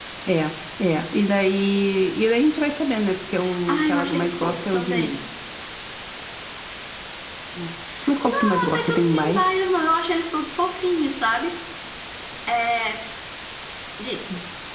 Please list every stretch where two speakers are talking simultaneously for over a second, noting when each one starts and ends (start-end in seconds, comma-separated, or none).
3.7-5.2, 8.2-9.6